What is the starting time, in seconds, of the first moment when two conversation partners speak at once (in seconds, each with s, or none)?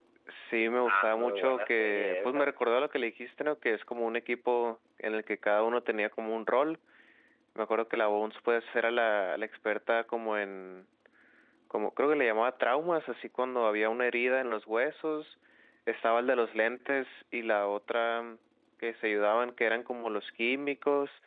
0.8 s